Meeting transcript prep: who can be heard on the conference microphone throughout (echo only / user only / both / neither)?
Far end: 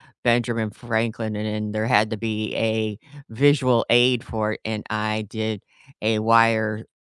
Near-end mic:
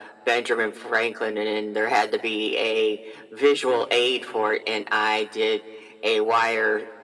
echo only